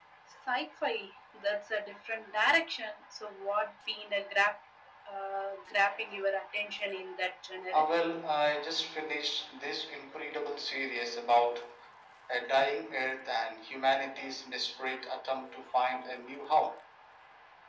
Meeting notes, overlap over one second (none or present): none